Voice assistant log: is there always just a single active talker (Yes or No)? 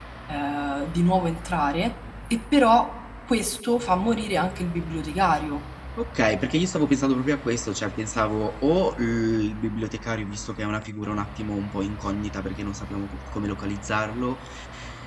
Yes